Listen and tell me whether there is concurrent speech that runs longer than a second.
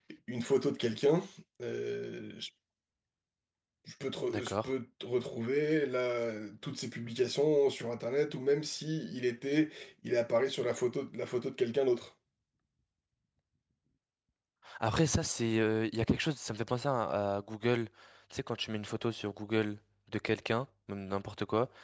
No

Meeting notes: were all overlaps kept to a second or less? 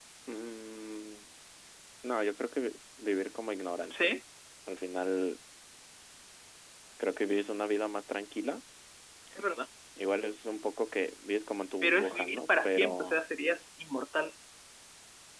No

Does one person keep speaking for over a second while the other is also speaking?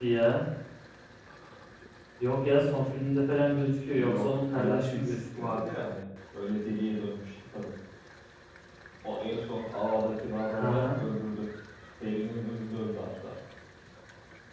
Yes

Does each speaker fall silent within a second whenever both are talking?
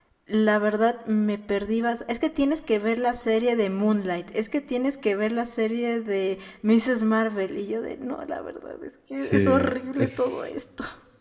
No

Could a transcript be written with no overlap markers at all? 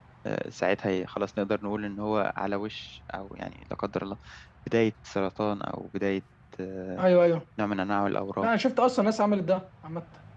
Yes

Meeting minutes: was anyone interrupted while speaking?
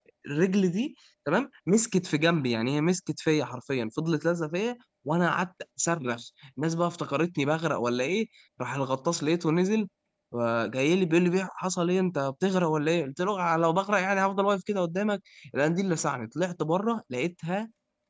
No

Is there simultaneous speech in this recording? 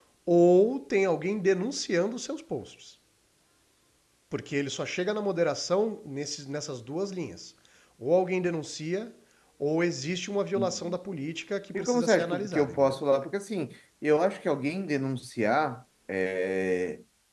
Yes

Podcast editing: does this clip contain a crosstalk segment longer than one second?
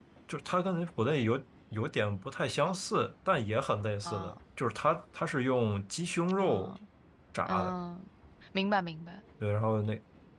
No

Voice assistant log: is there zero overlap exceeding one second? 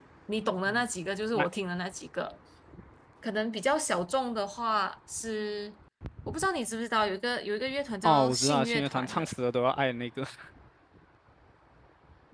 No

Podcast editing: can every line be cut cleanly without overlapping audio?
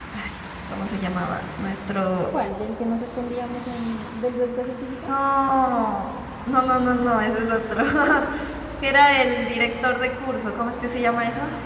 Yes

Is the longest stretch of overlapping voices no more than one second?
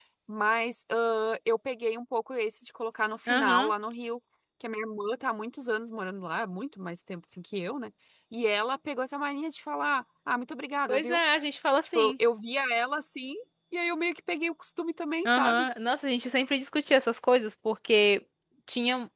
Yes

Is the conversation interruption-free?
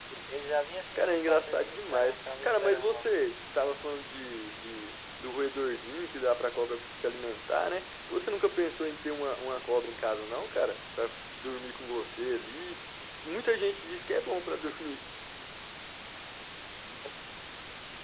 No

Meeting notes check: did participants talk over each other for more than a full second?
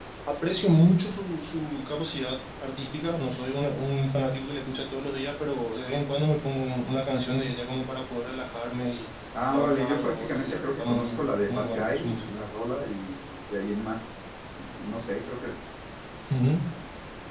Yes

